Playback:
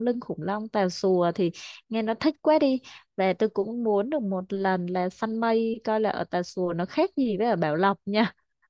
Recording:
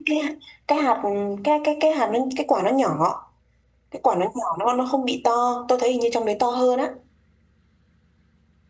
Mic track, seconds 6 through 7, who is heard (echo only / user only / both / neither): user only